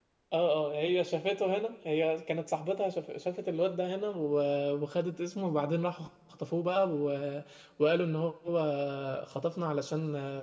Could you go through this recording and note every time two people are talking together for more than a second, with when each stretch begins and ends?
none

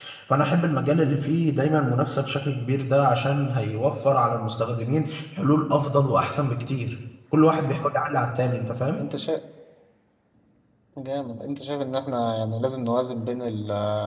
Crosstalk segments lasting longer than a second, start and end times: none

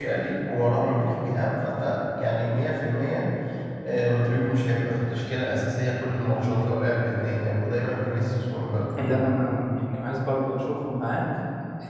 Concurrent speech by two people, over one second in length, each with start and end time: none

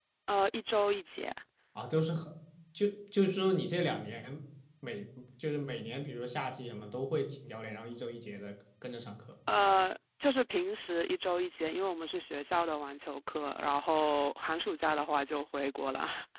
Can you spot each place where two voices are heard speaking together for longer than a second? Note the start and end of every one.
none

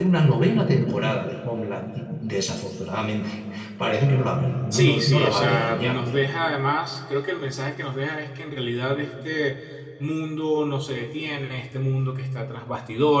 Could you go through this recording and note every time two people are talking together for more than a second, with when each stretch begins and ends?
4.7-6.0

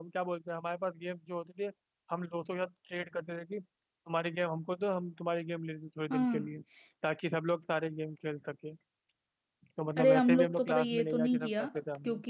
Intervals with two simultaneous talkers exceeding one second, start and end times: 10.0-11.7

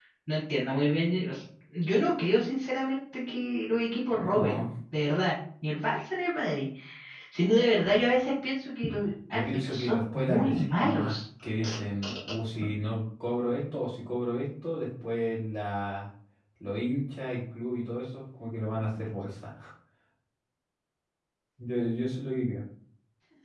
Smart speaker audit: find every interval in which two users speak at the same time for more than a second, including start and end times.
9.3-11.2

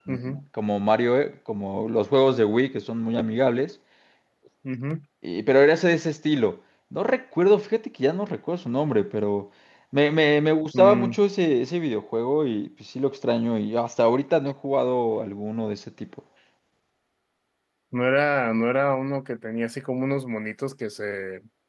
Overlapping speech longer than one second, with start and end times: none

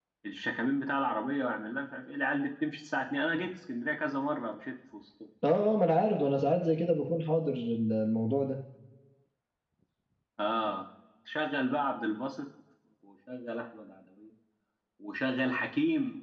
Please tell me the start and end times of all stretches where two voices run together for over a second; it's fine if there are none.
none

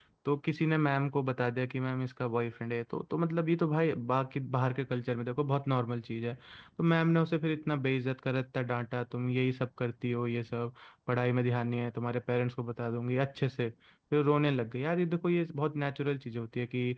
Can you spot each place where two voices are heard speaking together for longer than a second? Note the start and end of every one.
none

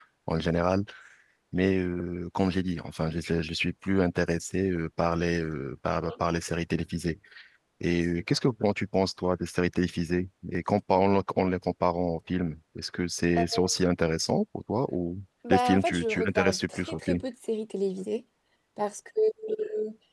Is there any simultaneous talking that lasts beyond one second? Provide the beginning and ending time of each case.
15.5-17.2

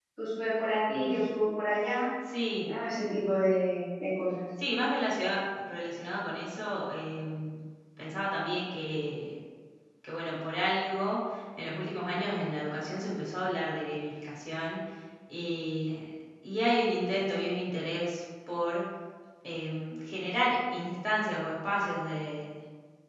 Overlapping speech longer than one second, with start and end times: none

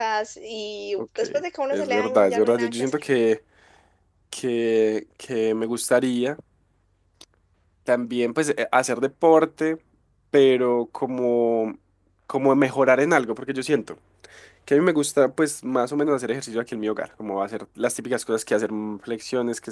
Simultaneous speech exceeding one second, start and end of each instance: 1.7-2.9

